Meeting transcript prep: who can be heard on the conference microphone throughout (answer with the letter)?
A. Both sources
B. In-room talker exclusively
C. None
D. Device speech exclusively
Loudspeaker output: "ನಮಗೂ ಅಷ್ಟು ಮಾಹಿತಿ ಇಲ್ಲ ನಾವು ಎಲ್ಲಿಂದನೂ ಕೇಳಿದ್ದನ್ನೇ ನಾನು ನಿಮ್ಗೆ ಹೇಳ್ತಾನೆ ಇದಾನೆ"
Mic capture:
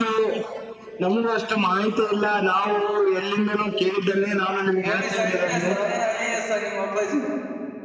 A